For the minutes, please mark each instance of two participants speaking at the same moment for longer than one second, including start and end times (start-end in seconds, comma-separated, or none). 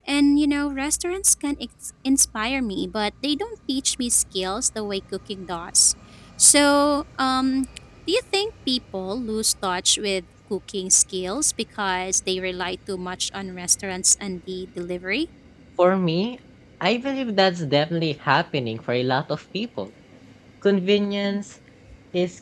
none